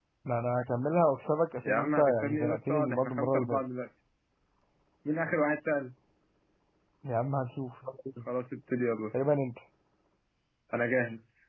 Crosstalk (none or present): present